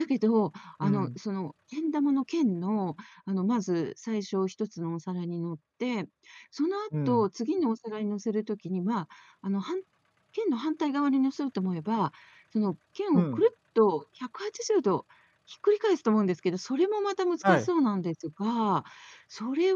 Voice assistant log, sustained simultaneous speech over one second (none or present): none